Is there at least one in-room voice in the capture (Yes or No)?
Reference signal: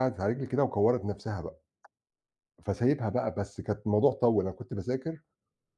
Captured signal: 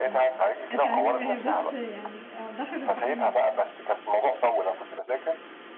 Yes